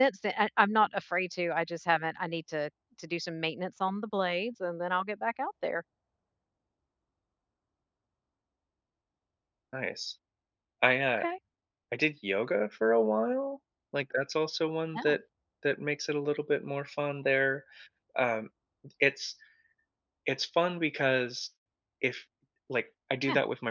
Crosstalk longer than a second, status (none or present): none